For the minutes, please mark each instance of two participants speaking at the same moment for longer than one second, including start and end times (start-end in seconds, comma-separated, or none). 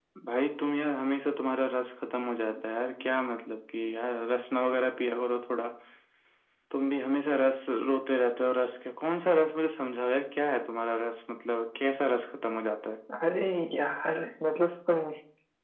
none